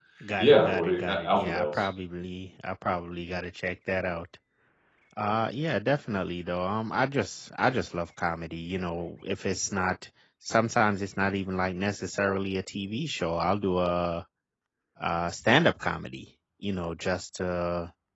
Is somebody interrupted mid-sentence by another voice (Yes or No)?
Yes